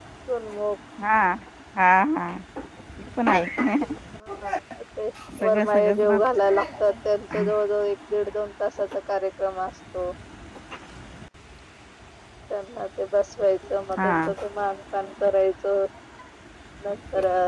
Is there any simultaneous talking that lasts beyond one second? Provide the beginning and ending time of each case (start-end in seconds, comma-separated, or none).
5.5-6.8